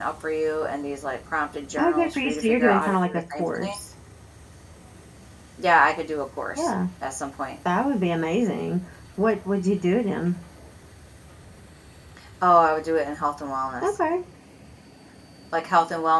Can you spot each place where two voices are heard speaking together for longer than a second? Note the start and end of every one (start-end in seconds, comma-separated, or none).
1.8-3.7